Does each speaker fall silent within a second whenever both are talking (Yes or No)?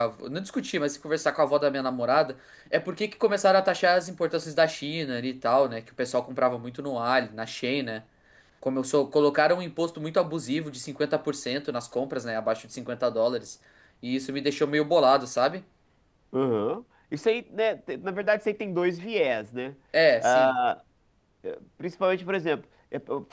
Yes